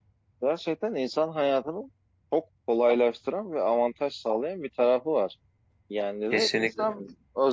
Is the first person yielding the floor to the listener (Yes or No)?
No